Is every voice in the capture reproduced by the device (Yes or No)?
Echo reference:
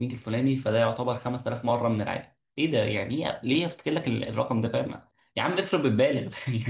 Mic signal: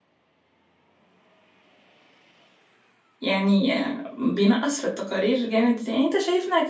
No